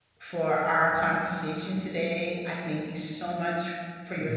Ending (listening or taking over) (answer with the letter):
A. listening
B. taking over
A